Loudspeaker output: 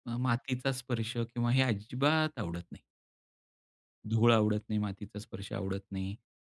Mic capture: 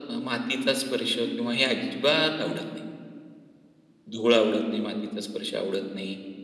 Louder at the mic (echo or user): echo